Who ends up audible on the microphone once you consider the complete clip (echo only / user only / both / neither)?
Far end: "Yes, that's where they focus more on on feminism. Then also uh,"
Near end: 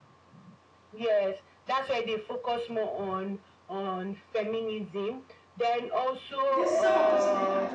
both